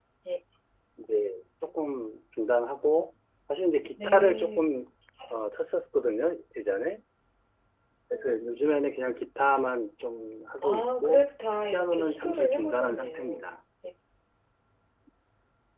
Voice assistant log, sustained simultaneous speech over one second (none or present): present